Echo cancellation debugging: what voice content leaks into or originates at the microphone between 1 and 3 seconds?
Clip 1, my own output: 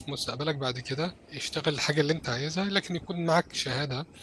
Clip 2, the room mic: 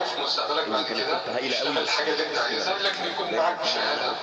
both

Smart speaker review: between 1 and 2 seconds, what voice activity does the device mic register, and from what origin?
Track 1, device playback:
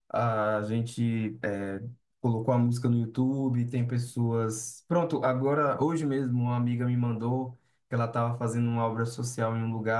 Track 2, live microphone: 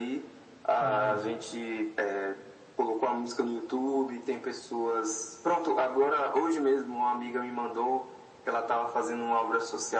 both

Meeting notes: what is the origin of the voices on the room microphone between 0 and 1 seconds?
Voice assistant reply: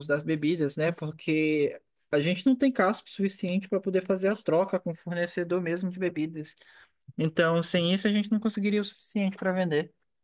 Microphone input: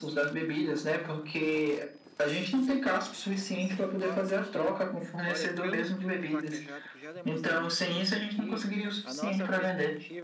both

